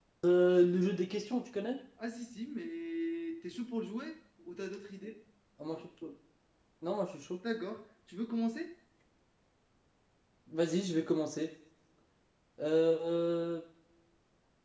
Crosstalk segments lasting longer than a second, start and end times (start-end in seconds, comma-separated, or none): none